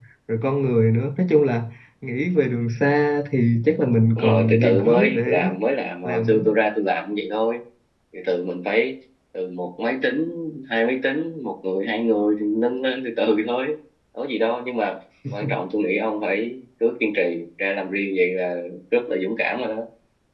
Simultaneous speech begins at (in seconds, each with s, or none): 4.2 s